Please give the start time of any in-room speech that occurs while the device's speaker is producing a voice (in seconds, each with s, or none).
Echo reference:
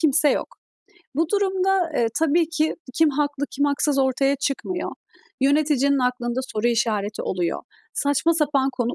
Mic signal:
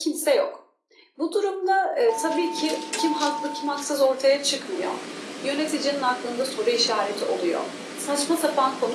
none